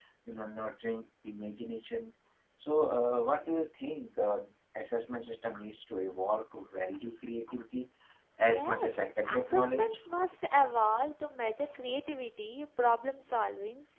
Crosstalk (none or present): present